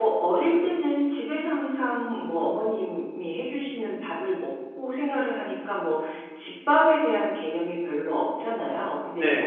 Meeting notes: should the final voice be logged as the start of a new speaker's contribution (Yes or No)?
No